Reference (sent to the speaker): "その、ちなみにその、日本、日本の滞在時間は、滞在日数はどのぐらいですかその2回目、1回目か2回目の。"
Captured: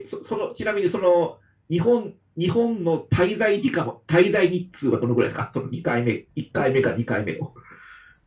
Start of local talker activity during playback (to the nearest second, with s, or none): none